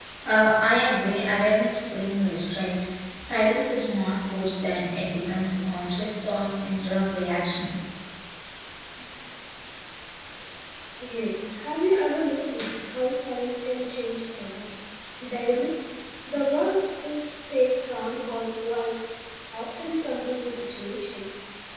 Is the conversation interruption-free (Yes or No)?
Yes